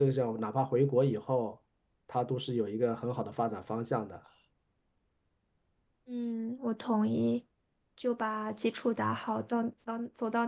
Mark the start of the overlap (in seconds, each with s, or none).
none